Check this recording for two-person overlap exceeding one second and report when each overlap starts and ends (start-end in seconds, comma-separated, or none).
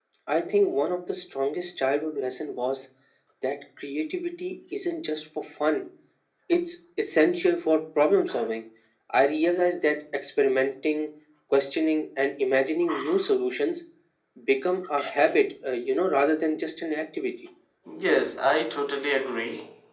none